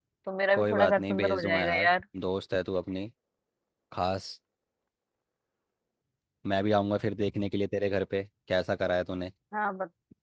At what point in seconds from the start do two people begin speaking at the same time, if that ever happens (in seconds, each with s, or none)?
0.5 s